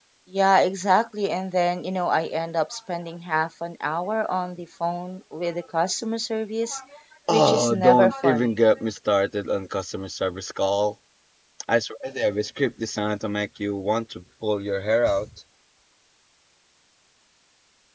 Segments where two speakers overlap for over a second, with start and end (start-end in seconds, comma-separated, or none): 7.3-8.5